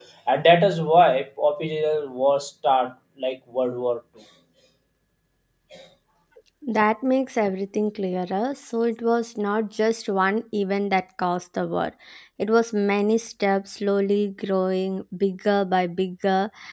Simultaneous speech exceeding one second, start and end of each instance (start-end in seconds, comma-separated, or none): none